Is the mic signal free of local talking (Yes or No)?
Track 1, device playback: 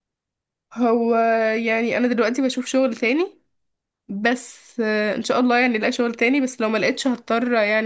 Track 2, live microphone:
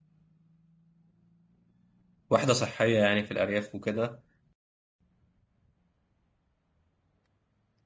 No